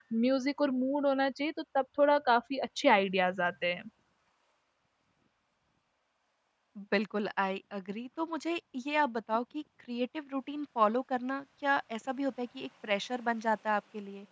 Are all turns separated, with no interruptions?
Yes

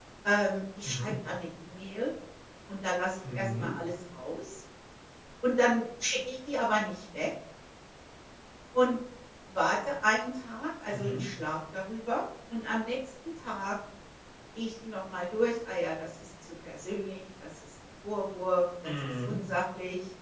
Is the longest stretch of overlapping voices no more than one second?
Yes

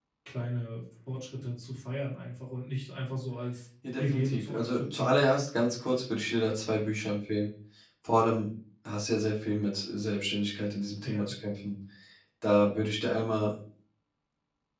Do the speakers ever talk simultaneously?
Yes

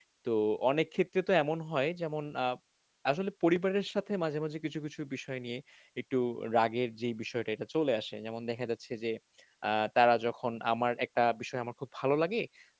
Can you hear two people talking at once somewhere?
No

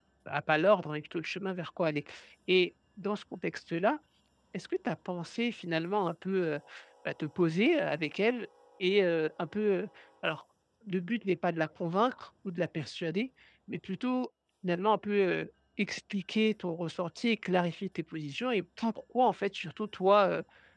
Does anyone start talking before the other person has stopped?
No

